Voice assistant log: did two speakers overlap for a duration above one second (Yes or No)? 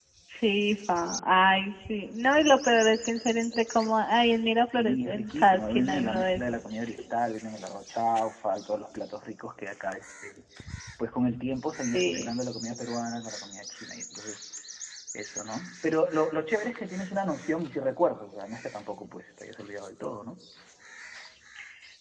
Yes